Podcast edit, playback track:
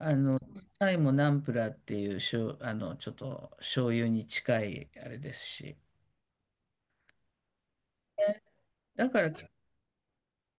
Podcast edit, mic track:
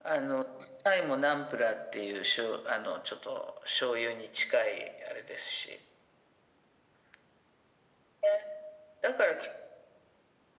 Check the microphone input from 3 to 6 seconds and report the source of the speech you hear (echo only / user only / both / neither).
echo only